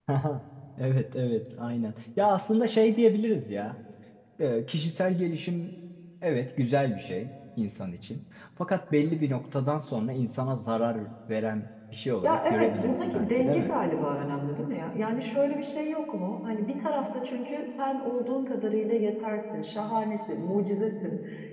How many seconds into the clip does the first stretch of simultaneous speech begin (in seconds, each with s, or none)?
12.2 s